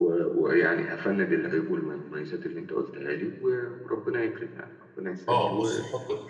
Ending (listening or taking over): taking over